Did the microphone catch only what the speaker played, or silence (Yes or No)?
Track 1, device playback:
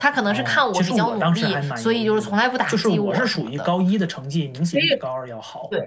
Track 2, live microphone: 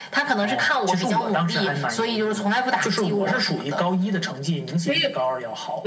Yes